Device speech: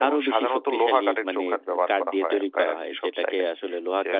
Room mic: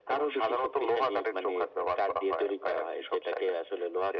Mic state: echo only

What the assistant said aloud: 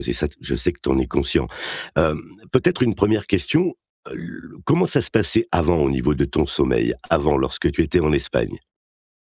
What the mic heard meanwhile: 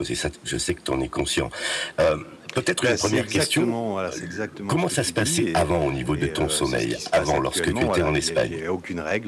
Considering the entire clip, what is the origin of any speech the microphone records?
both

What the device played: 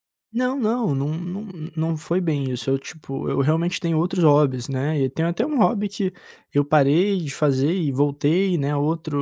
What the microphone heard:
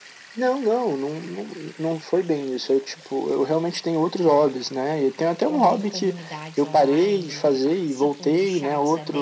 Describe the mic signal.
both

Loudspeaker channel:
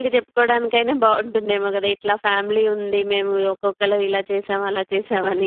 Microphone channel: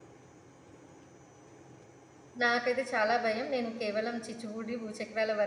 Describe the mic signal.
user only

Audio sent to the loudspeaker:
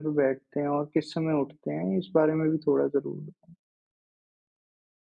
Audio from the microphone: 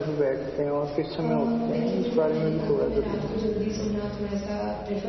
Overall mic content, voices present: both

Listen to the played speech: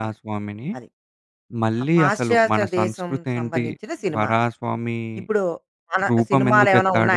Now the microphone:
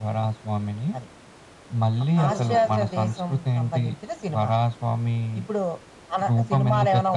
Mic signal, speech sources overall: both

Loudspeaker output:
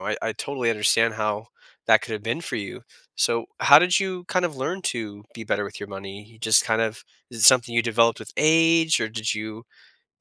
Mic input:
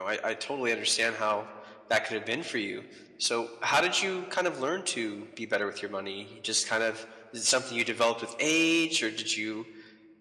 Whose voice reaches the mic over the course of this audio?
echo only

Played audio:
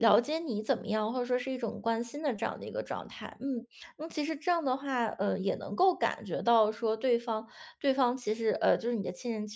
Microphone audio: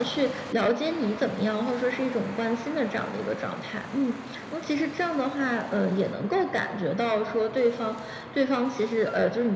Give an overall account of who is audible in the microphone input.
echo only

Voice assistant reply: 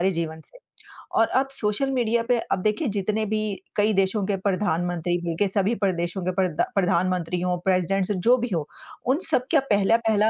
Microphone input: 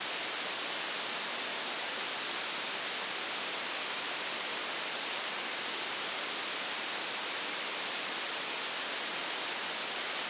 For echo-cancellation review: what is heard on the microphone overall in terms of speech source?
neither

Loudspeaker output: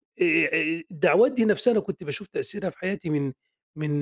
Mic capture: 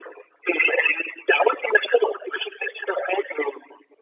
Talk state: echo only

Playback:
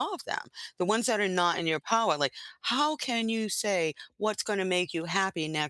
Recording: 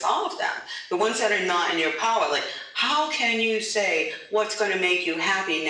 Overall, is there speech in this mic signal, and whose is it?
echo only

